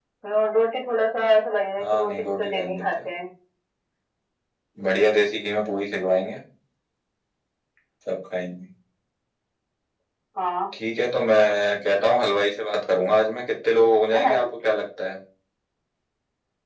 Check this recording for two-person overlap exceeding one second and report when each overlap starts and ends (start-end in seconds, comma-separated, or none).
1.8-3.2